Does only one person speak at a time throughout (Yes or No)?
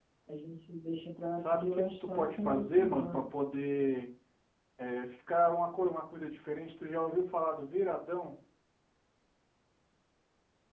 No